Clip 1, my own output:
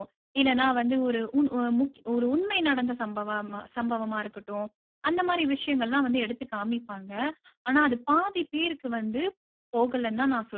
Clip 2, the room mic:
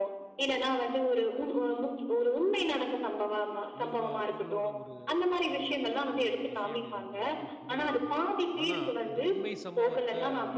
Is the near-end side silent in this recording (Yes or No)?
No